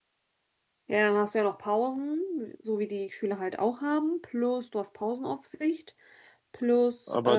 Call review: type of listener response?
taking over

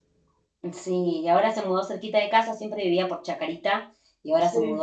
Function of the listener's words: listening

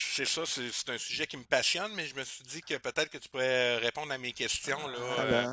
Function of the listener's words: taking over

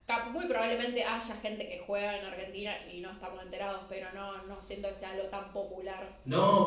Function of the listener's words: taking over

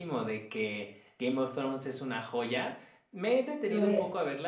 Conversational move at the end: listening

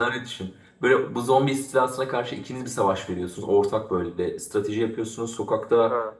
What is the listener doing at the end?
listening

